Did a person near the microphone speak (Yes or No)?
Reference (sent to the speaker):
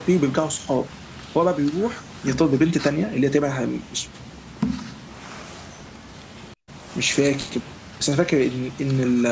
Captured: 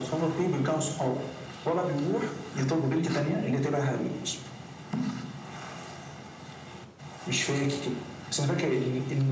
No